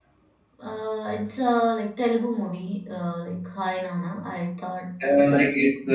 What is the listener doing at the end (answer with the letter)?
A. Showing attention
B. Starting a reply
B